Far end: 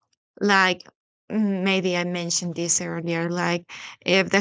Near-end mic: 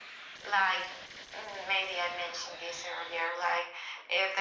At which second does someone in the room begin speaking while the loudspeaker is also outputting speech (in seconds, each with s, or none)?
none